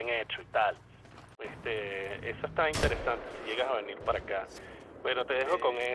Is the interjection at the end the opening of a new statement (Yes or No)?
No